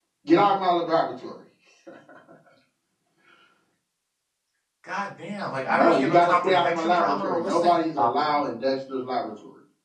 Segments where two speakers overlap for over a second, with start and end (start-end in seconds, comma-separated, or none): 5.7-8.4